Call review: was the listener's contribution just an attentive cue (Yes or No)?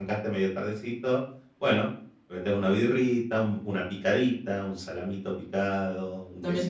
No